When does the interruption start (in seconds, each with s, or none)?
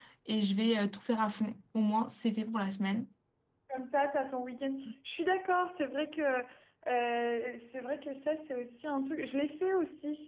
none